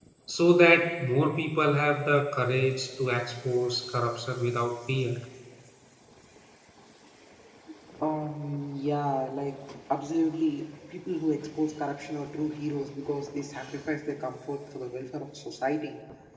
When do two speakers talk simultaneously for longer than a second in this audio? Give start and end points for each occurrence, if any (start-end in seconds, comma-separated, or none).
none